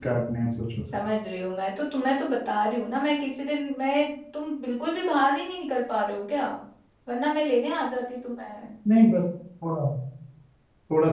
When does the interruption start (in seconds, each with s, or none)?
none